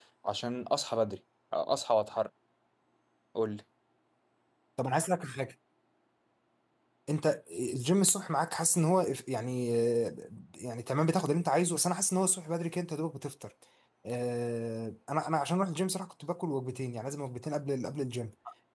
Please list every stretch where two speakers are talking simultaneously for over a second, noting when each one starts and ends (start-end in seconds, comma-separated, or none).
none